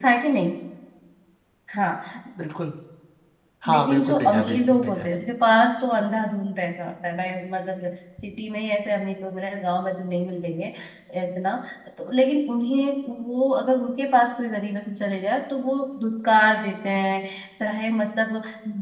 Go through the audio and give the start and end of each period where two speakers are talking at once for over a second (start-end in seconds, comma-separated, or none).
3.7-5.1